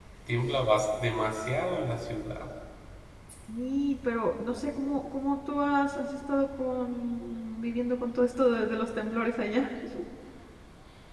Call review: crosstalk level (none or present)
none